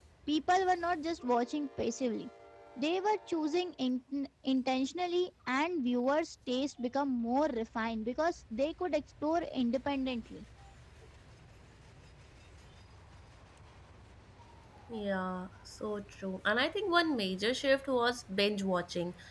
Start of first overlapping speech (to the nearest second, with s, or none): none